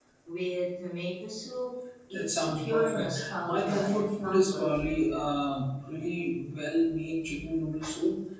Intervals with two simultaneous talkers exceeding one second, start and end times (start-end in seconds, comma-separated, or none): 2.1-4.6